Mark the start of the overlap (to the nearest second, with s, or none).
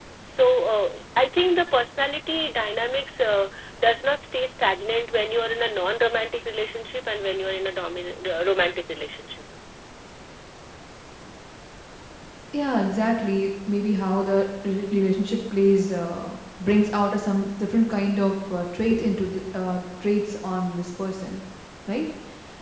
none